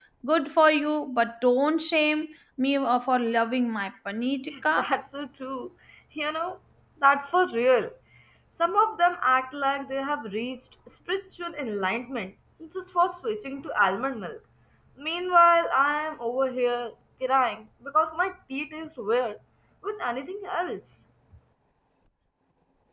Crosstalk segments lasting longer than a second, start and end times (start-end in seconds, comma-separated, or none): none